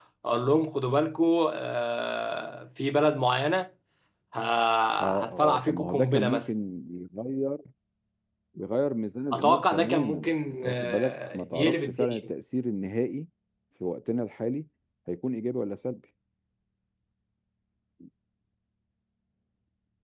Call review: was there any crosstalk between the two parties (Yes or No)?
Yes